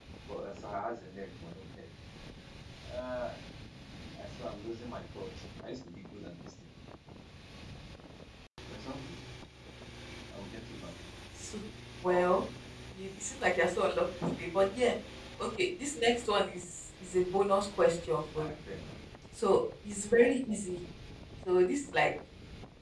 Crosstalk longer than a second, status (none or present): none